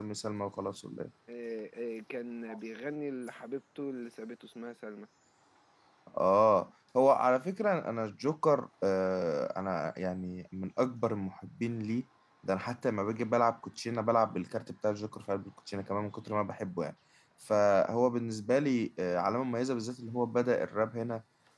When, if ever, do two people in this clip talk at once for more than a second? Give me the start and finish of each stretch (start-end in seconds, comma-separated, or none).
none